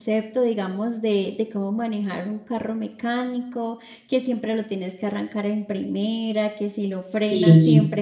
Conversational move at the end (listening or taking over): listening